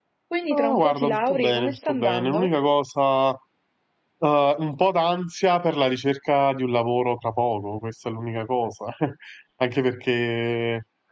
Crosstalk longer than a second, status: present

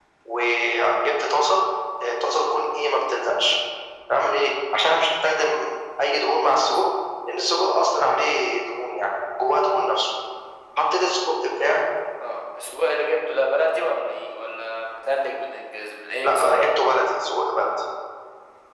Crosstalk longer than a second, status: none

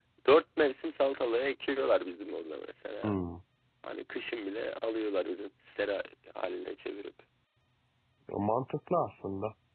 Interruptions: none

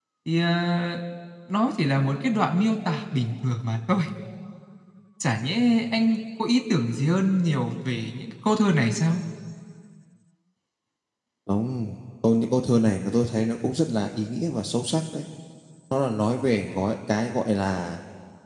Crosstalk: none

